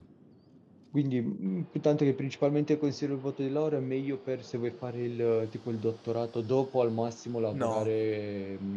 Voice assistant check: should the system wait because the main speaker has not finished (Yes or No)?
Yes